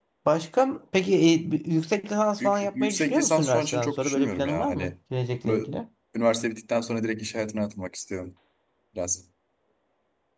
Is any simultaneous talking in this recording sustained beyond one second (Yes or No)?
Yes